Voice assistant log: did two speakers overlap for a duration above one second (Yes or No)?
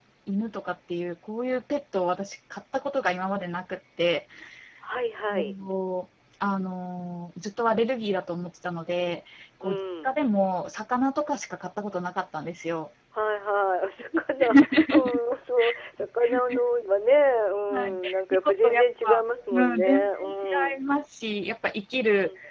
Yes